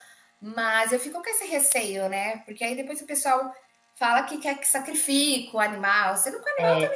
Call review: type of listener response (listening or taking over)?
listening